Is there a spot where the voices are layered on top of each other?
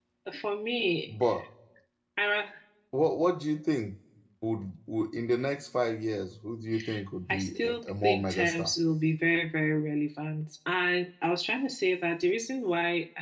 Yes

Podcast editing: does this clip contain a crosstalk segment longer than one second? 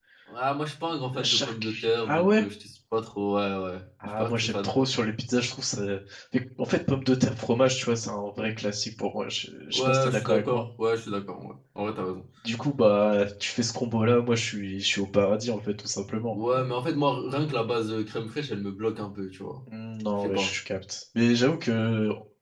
Yes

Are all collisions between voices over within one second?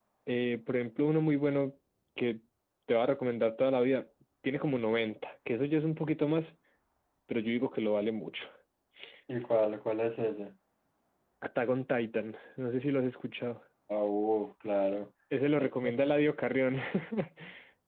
Yes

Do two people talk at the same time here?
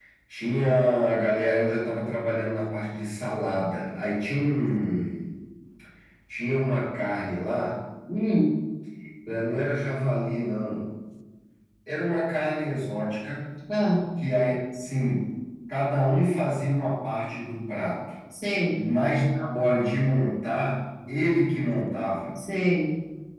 No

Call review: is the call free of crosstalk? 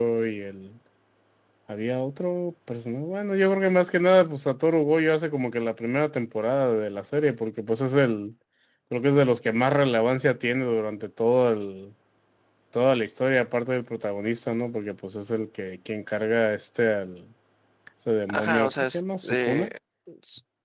No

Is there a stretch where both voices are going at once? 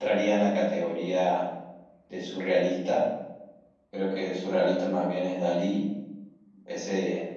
No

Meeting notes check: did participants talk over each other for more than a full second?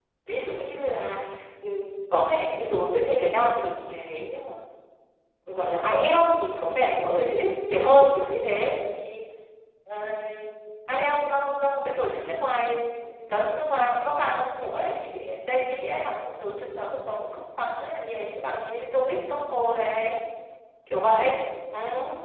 No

